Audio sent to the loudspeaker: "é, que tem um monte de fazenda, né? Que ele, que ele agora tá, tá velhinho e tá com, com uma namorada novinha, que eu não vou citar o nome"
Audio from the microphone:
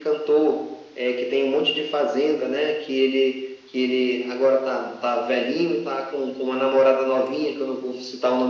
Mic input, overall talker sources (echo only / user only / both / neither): echo only